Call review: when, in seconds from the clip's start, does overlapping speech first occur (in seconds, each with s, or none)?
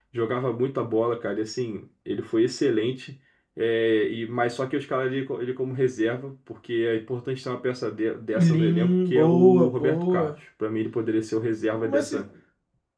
8.5 s